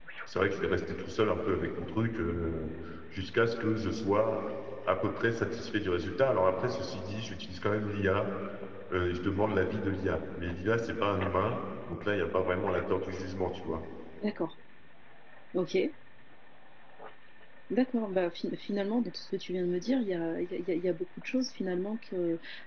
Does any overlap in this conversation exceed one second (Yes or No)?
No